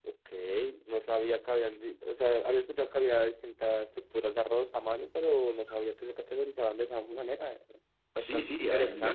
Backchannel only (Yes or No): No